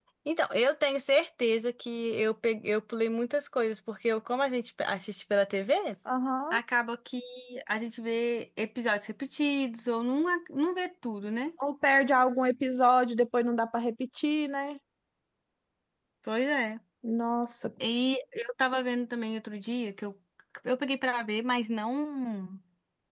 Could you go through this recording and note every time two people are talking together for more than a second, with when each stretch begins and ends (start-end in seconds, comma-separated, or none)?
none